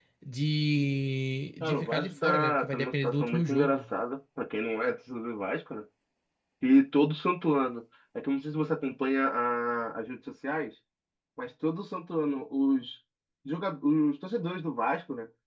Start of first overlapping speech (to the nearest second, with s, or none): 2 s